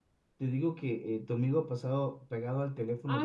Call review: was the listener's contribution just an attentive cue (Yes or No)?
No